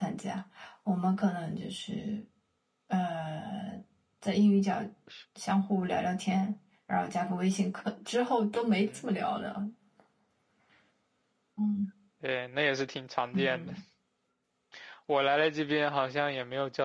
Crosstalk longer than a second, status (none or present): none